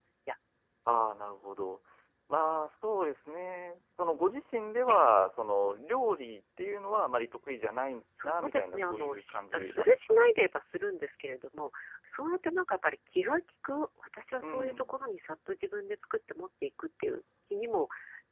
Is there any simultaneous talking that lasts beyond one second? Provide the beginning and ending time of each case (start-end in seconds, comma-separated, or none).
8.2-10.3